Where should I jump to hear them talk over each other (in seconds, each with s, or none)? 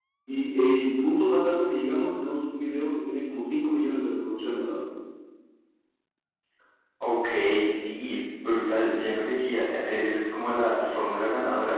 none